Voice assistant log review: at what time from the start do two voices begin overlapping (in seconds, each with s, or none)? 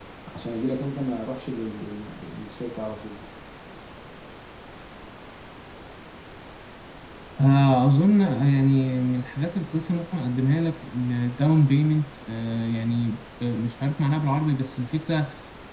none